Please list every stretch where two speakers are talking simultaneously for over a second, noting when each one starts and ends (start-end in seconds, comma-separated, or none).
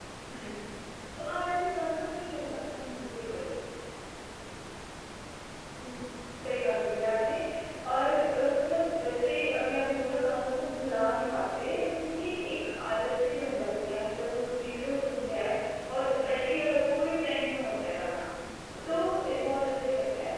none